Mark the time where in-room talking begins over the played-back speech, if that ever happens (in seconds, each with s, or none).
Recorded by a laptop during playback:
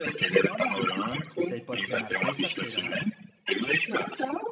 1.4 s